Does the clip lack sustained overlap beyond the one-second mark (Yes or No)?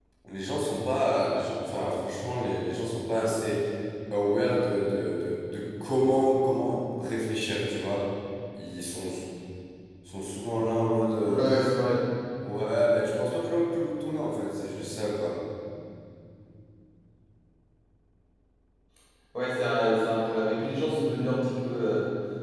Yes